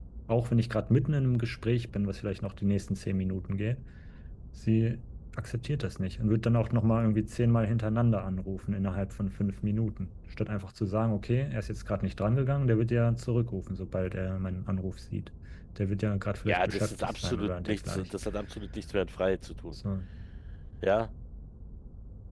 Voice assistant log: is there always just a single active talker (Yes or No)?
No